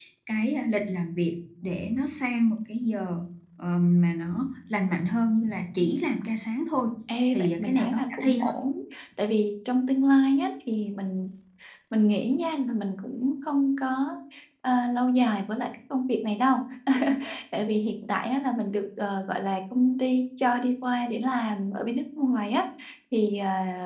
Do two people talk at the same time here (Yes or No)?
Yes